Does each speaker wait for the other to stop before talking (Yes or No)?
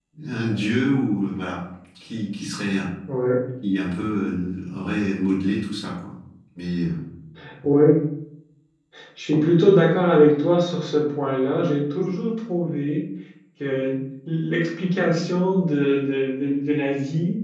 Yes